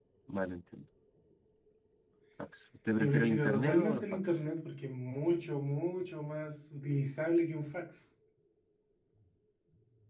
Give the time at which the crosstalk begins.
3.0 s

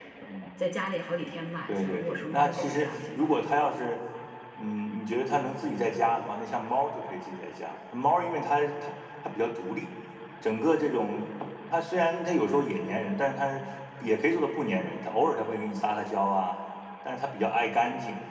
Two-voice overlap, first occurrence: 1.7 s

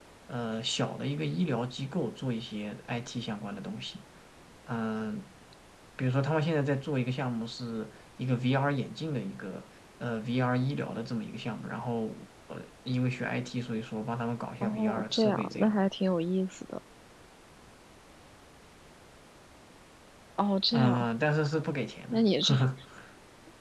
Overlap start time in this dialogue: 14.6 s

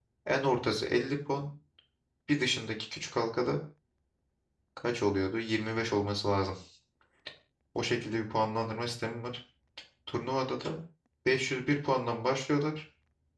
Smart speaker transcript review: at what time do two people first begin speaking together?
none

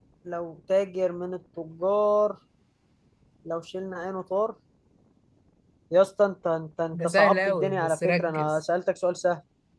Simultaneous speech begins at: 6.9 s

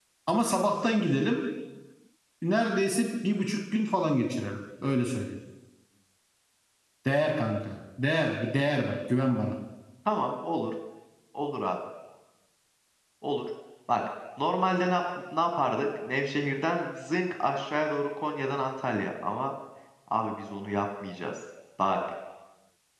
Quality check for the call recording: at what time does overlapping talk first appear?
none

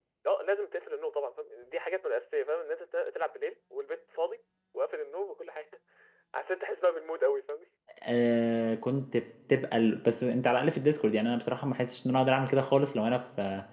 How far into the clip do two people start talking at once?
none

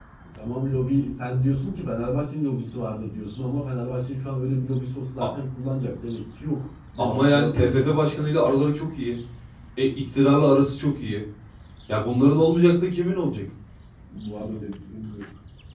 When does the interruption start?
7.0 s

